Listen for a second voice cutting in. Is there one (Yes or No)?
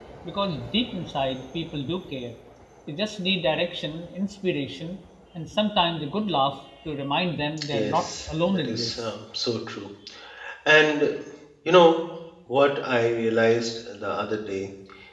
Yes